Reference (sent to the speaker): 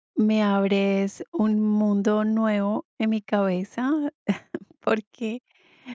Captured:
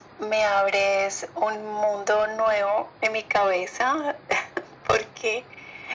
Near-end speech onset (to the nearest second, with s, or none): none